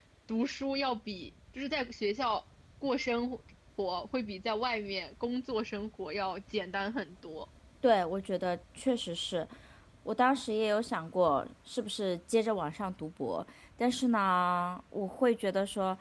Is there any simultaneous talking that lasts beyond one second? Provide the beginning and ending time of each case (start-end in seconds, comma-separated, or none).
none